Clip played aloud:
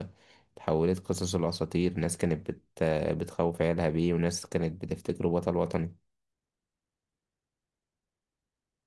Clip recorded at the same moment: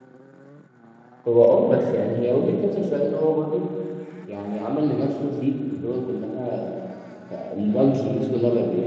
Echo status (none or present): none